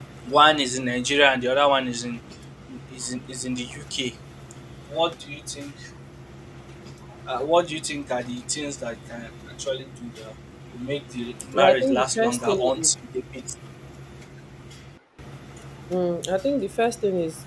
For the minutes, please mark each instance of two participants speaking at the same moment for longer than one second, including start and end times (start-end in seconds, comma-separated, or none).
11.5-12.9